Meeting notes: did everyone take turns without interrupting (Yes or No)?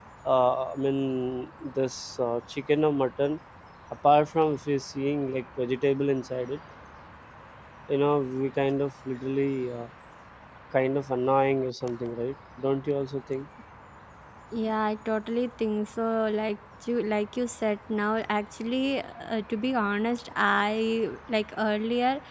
Yes